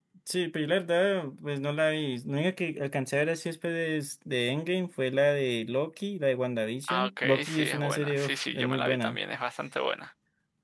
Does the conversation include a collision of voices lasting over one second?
Yes, from 6.9 s

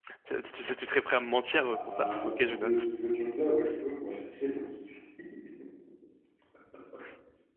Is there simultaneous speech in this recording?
Yes, from 1.5 s

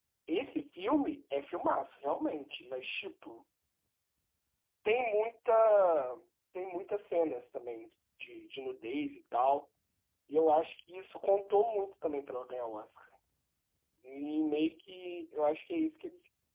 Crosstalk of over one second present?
No

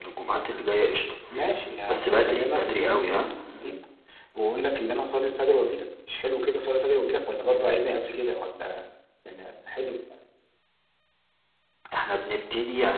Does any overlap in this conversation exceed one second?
Yes, from 1.8 s

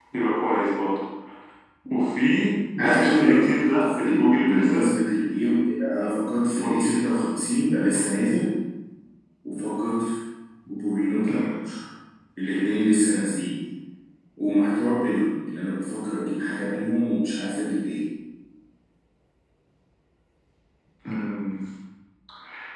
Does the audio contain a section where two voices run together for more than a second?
Yes, from 2.8 s

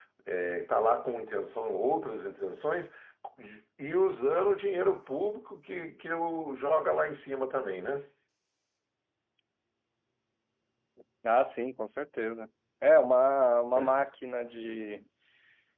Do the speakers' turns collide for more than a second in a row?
No

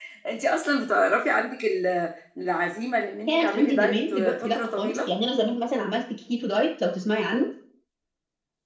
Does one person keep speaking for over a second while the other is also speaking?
Yes, from 3.3 s

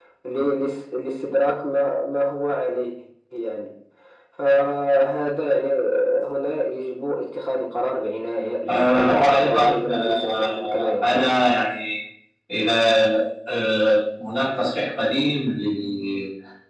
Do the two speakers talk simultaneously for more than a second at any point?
Yes, from 8.7 s

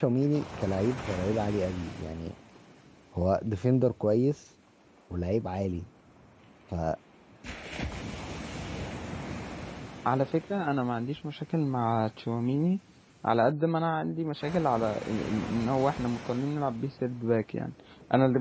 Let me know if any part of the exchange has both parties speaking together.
No

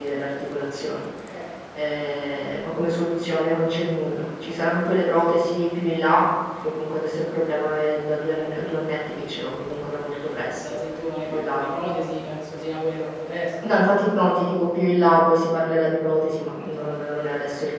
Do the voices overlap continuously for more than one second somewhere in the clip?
No

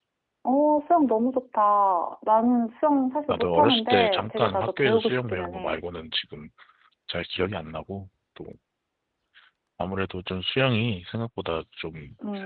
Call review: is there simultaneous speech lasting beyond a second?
Yes, from 3.3 s

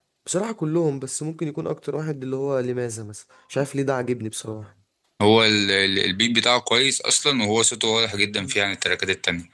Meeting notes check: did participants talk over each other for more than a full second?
No

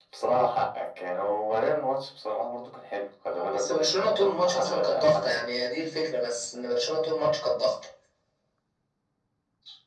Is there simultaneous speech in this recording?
Yes, from 3.3 s

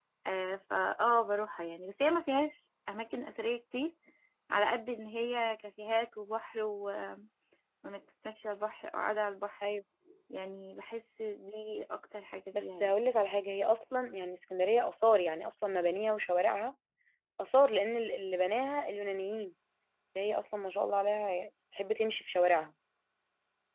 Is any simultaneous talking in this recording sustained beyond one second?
No

